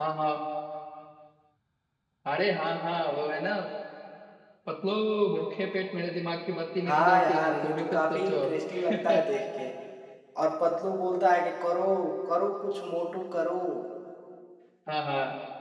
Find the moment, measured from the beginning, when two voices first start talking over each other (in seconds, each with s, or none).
6.8 s